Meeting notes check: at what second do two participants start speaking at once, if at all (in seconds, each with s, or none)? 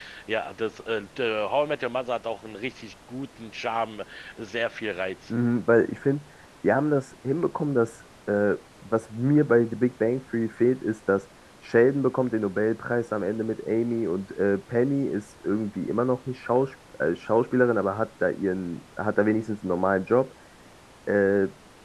none